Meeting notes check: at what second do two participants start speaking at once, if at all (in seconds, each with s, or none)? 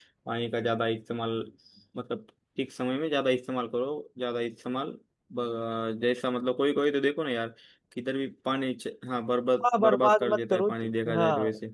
9.6 s